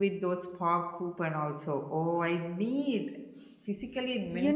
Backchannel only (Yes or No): No